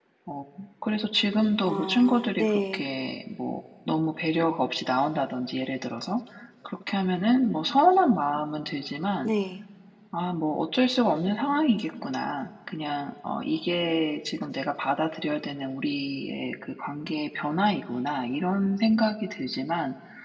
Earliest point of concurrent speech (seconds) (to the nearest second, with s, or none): 2 s